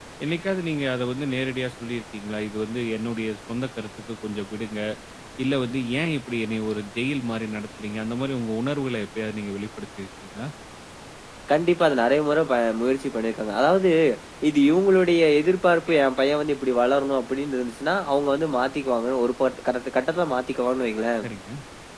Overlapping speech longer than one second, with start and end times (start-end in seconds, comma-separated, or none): none